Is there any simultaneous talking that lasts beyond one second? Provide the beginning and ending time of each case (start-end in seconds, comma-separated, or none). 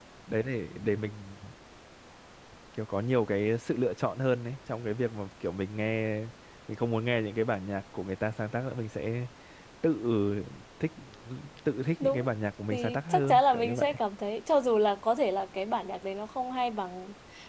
12.7-14.0